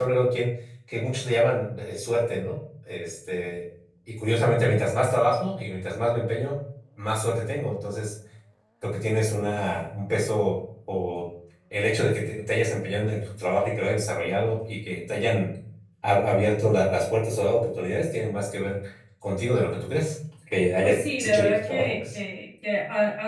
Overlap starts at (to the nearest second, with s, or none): 21 s